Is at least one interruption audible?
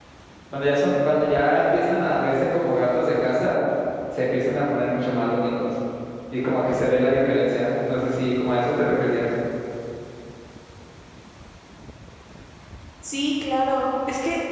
No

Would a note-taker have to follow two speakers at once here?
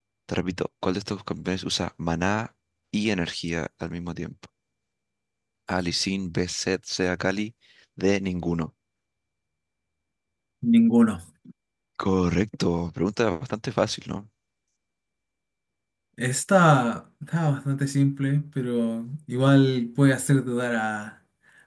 No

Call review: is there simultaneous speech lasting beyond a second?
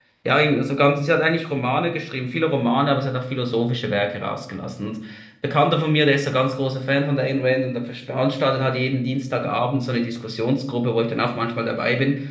No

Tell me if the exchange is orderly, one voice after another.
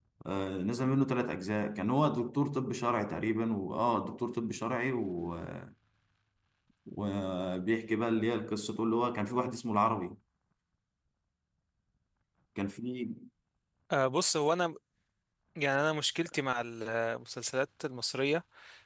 Yes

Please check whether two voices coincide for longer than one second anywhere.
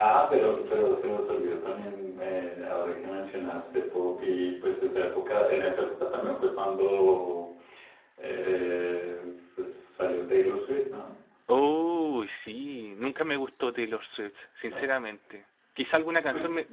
No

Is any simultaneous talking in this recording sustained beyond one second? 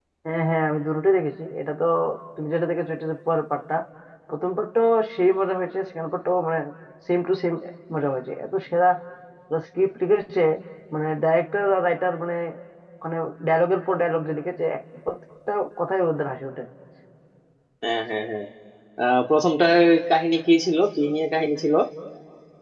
No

